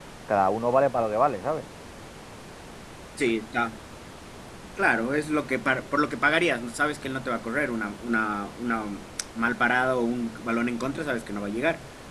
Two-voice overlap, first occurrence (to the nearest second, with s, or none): none